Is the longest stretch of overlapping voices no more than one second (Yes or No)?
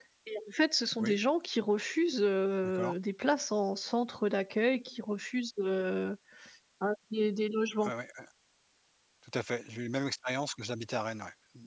Yes